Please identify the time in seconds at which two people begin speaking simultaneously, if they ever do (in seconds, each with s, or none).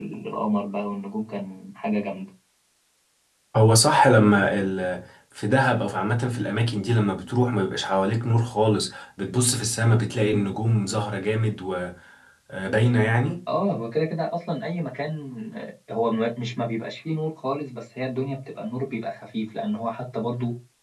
none